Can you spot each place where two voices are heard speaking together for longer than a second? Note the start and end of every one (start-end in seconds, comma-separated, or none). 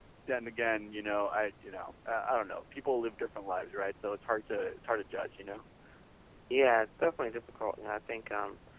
none